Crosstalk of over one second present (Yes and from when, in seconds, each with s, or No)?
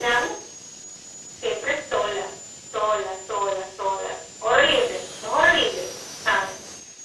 No